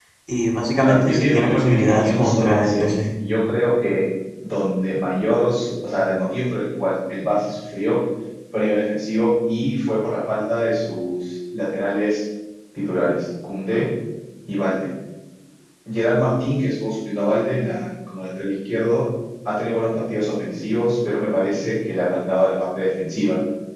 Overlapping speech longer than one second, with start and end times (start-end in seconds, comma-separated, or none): 0.8-3.0